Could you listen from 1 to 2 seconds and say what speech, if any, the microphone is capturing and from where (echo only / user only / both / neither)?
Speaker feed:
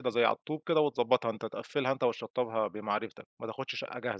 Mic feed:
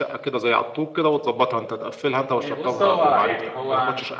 echo only